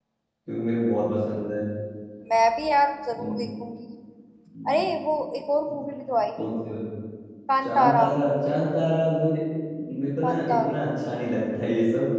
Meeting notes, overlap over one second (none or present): none